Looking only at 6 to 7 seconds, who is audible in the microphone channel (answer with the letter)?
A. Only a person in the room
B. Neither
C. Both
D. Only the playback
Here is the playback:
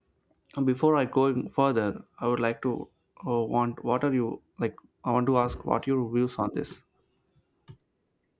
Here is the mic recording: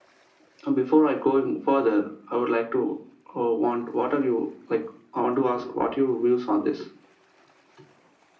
D